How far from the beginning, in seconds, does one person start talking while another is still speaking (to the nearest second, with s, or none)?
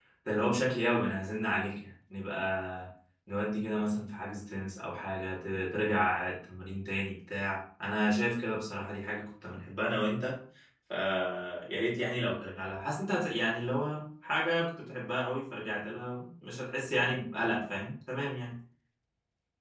none